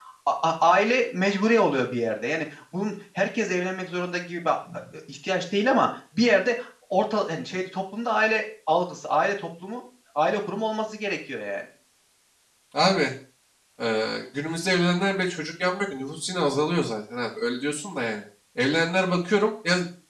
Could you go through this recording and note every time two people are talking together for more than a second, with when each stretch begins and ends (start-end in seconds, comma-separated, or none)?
none